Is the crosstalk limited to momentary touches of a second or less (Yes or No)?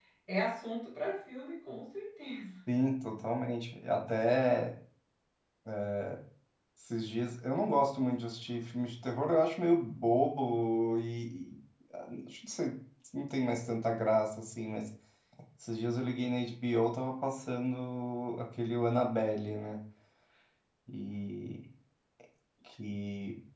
Yes